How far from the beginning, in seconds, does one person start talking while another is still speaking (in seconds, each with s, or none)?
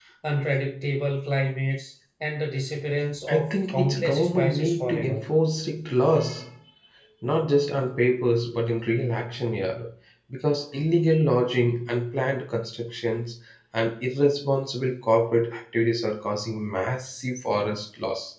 3.3 s